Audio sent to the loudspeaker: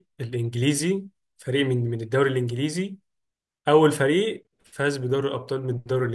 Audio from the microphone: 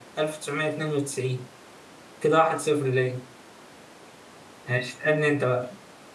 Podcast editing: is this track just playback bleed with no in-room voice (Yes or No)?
No